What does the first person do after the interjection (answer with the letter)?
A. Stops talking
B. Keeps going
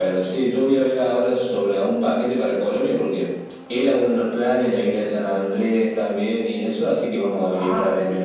A